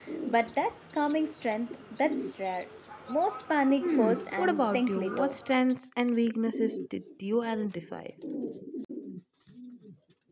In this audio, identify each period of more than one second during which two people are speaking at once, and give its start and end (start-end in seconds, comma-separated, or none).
3.8-5.3